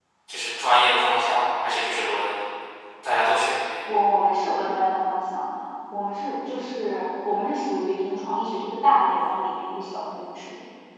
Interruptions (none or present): none